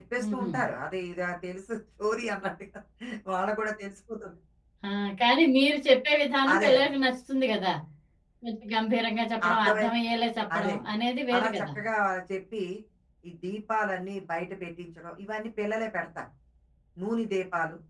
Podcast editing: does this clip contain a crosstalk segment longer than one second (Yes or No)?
No